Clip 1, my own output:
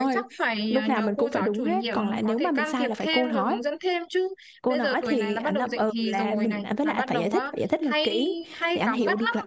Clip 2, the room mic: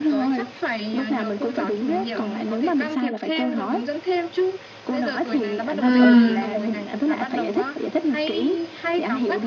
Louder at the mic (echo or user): user